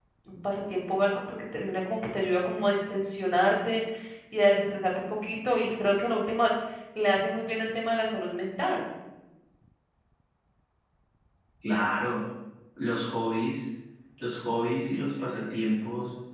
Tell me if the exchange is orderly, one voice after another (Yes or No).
Yes